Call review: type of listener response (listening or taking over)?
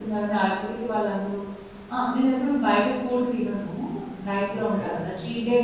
listening